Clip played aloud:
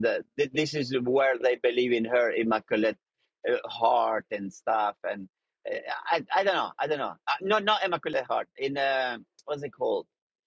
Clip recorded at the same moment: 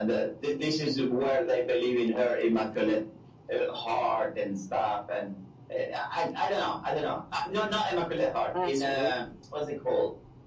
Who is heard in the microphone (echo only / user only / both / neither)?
both